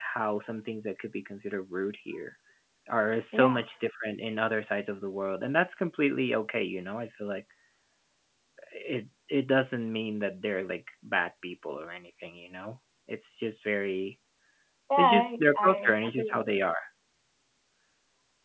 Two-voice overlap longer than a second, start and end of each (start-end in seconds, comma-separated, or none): 15.0-16.3